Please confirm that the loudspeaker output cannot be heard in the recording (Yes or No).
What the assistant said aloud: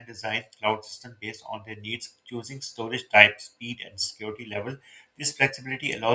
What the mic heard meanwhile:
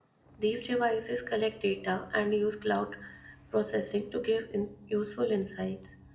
Yes